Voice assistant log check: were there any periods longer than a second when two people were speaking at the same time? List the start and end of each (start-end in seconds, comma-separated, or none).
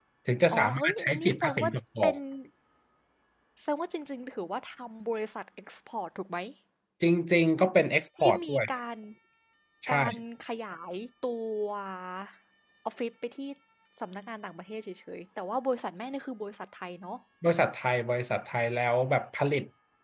0.5-2.1